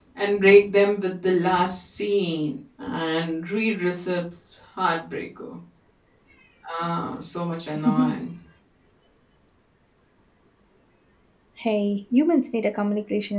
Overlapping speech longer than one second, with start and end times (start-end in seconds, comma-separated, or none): none